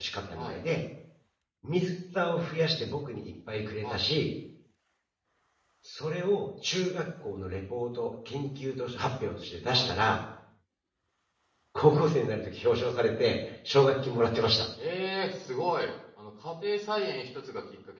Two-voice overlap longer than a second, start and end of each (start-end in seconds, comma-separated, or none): none